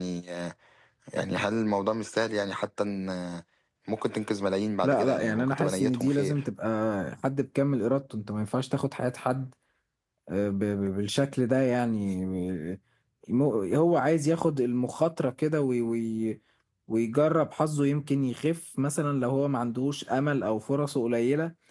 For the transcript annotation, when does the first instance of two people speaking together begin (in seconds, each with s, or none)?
4.8 s